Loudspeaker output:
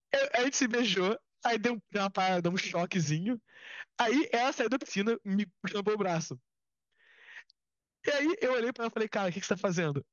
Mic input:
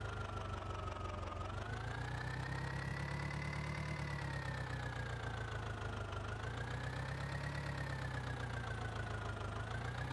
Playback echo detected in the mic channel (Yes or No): No